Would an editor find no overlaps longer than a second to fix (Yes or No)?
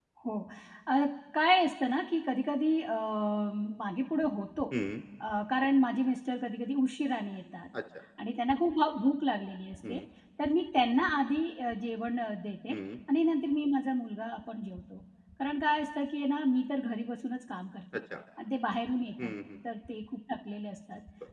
Yes